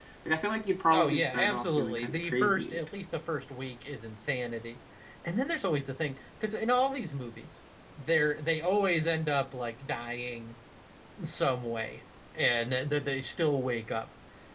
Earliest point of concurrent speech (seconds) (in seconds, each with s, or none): 0.9 s